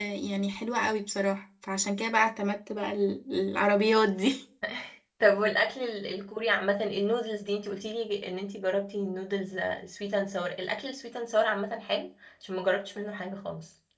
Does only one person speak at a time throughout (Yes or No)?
Yes